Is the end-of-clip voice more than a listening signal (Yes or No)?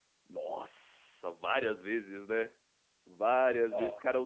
No